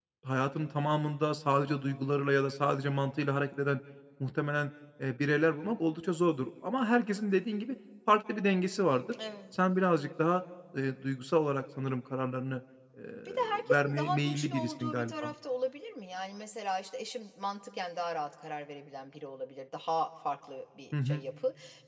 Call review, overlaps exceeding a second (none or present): present